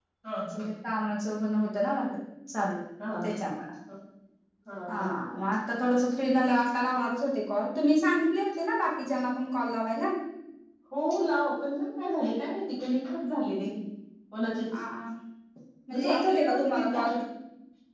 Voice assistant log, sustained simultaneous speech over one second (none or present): present